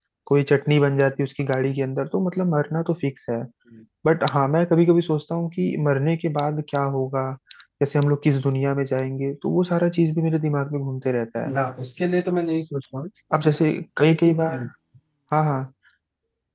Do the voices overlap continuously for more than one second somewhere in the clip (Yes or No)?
No